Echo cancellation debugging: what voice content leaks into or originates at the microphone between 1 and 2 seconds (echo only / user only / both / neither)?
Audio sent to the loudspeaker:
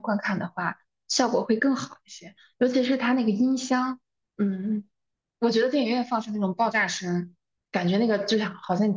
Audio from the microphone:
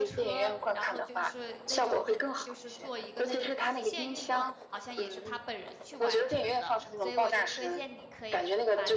both